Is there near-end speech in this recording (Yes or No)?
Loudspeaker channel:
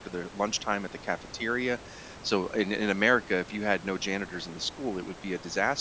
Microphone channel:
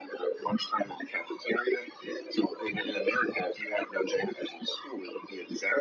No